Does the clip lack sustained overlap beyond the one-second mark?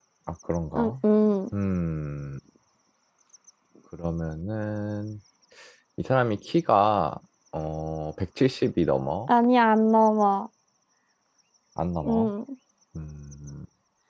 Yes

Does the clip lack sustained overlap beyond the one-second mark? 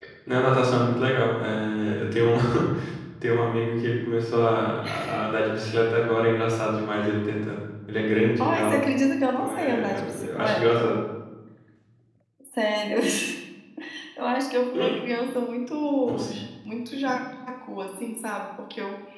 No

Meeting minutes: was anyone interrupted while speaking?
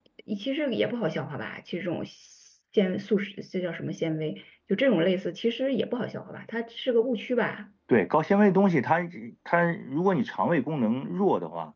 No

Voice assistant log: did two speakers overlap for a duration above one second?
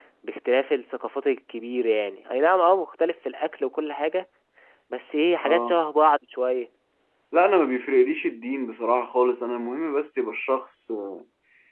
No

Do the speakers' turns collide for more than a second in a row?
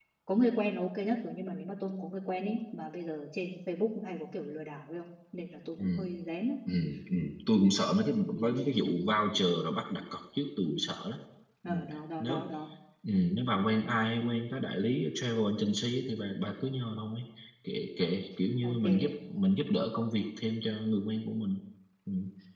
No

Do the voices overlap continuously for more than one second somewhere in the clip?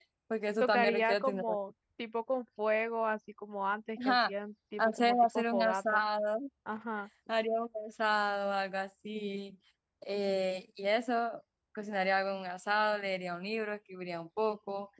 Yes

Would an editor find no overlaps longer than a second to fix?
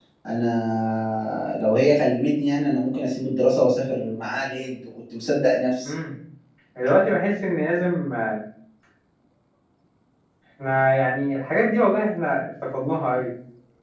Yes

